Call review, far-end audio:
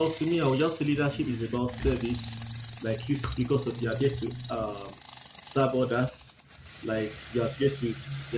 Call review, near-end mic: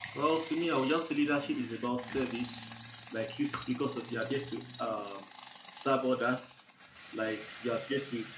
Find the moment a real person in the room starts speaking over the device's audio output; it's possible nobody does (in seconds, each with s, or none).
none